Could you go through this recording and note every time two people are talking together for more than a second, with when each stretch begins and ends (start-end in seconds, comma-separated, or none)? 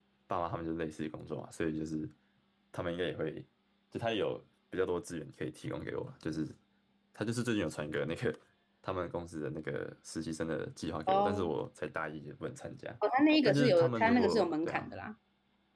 13.4-14.9